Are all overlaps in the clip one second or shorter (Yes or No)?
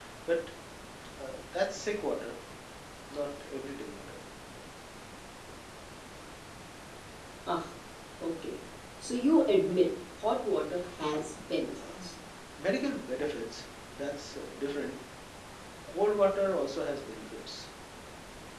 Yes